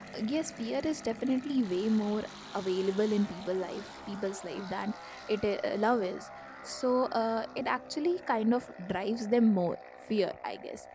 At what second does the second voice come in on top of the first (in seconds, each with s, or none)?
none